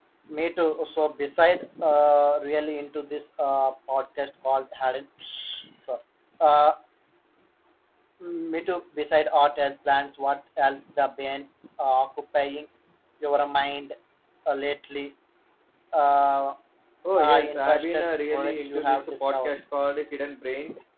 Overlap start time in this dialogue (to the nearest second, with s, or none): 17 s